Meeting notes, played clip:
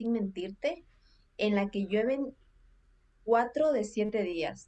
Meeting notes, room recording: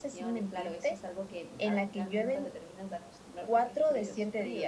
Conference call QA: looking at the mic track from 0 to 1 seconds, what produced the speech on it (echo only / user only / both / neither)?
both